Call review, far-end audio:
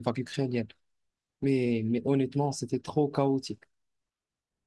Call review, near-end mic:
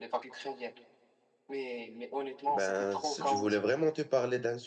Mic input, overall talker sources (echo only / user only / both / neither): both